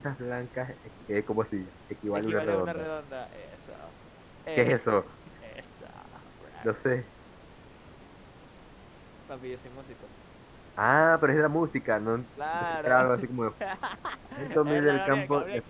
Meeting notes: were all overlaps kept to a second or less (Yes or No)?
No